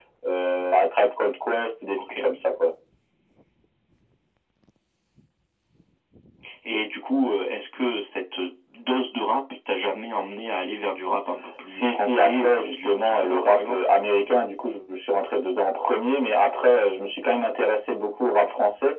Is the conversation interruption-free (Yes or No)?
No